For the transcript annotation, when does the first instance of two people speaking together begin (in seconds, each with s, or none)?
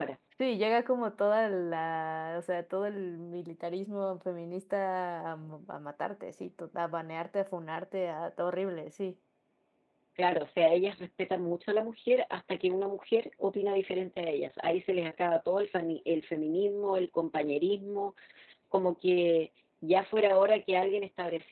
none